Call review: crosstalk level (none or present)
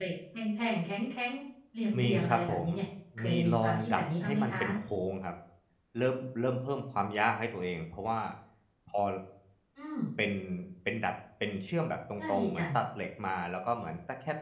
present